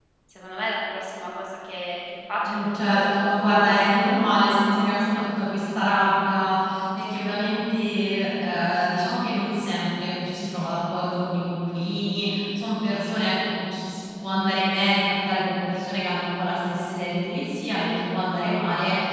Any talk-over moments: Yes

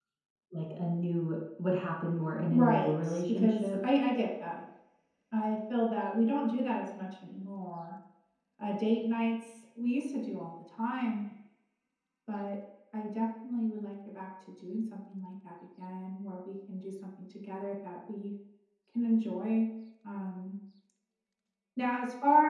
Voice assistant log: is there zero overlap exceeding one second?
No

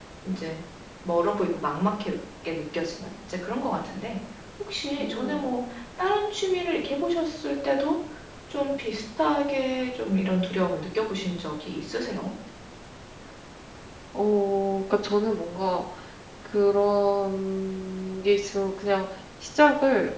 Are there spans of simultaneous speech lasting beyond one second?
No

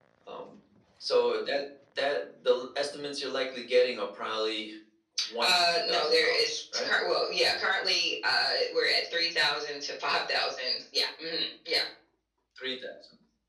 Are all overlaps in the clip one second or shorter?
No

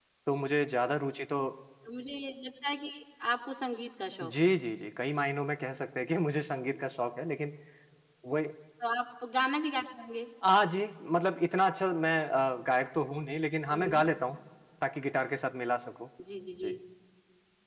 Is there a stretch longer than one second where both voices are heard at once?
No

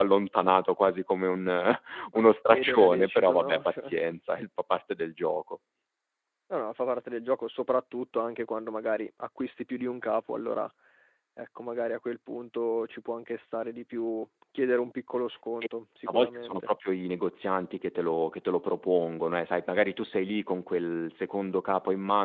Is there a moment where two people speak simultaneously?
Yes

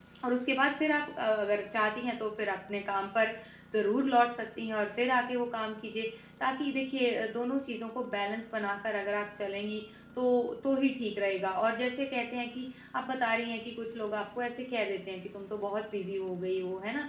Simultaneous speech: No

